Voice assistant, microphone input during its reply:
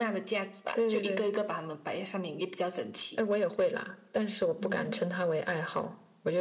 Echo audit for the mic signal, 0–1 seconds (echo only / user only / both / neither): echo only